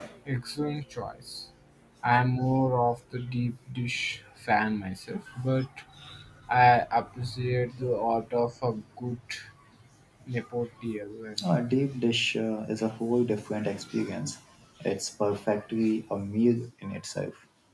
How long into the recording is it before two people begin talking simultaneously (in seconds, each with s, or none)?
none